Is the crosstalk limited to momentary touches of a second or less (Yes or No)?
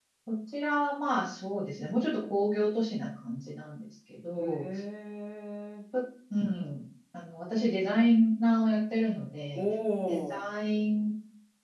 Yes